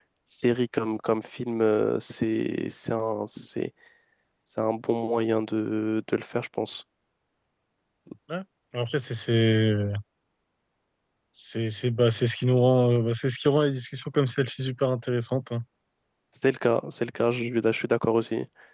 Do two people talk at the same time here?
No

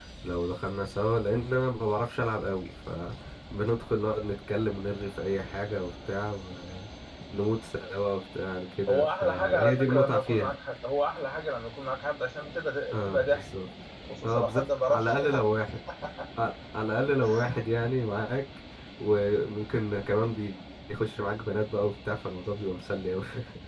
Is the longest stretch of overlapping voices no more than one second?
No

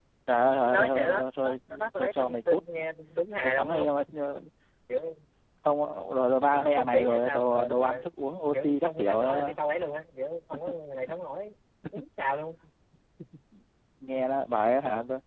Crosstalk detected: Yes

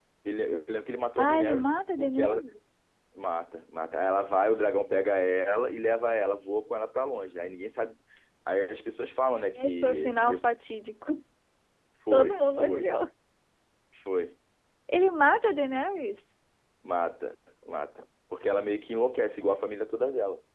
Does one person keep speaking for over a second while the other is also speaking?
Yes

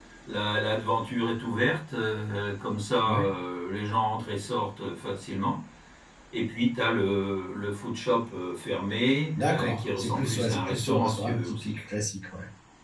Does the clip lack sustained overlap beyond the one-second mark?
No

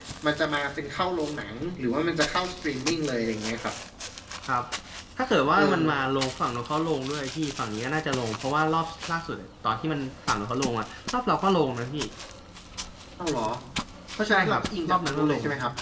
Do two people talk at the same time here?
Yes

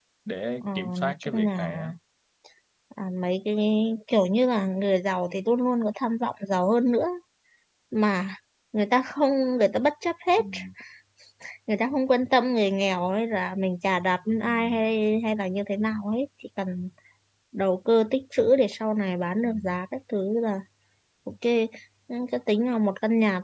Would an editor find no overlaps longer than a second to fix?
No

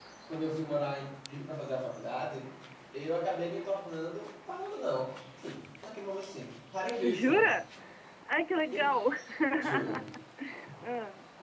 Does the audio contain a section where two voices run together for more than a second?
No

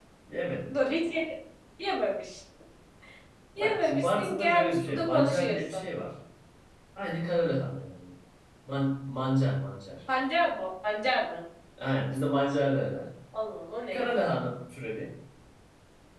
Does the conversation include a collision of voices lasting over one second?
Yes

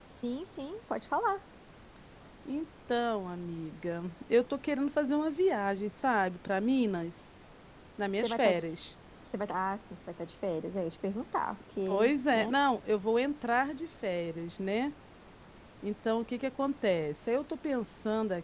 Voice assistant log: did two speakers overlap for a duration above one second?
No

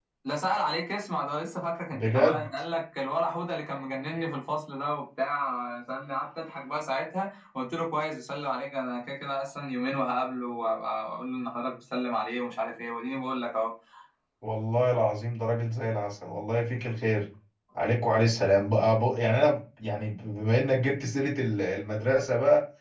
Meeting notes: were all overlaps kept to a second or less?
Yes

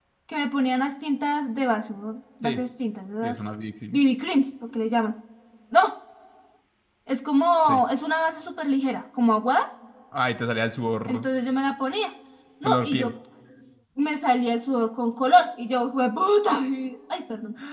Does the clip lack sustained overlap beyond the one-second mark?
Yes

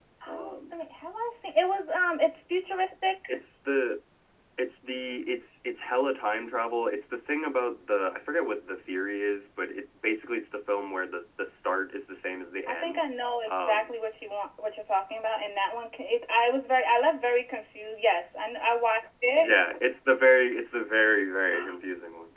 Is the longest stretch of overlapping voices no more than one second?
Yes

